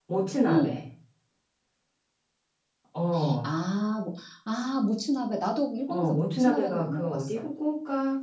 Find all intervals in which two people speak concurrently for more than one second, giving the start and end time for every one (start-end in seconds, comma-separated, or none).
5.9-7.4